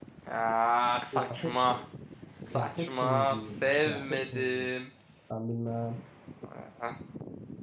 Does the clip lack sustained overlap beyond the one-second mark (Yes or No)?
No